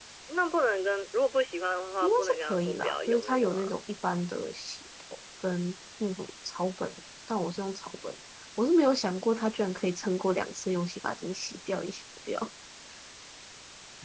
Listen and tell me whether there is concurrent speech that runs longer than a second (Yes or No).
Yes